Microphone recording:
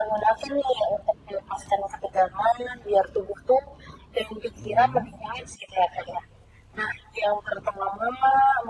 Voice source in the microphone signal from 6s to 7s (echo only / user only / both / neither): echo only